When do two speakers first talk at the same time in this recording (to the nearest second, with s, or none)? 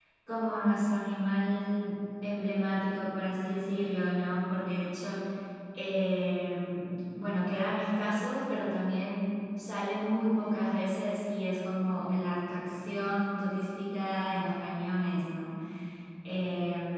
none